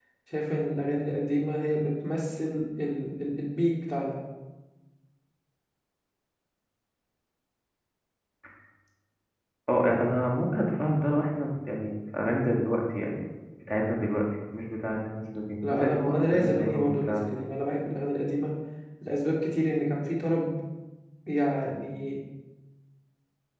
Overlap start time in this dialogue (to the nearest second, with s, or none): 16 s